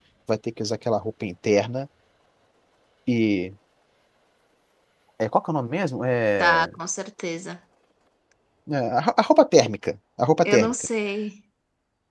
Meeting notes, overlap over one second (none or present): none